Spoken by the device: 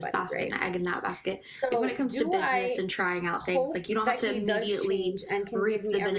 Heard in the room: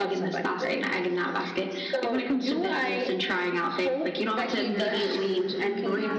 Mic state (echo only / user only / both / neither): both